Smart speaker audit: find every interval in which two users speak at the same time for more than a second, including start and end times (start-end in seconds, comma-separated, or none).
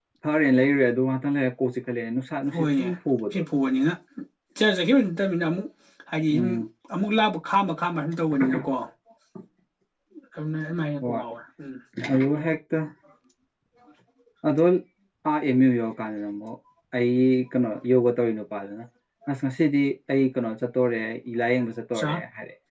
none